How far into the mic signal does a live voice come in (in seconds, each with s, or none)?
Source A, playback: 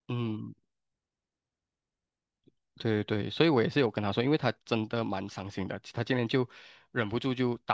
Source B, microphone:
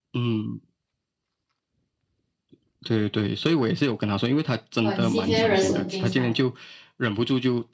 4.8 s